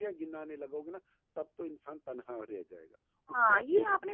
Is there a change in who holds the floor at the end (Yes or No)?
Yes